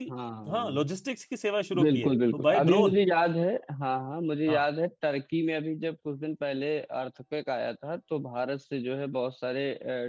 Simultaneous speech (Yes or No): Yes